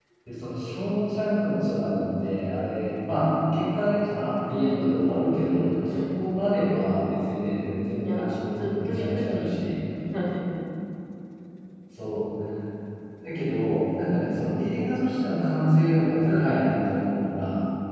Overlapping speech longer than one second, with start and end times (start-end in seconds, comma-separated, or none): 8.0-9.7